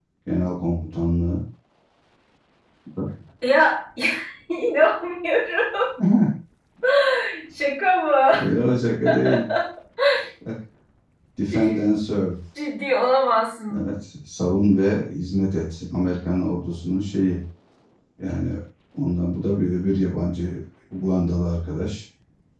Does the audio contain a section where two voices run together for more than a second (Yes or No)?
No